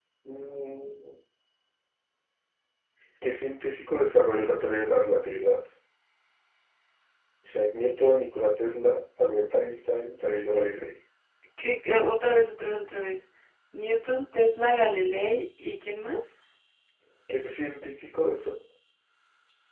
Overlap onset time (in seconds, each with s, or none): none